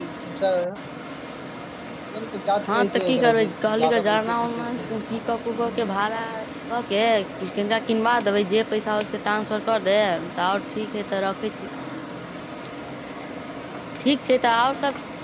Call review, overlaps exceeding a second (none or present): present